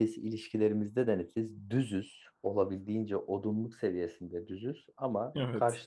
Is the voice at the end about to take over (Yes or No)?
No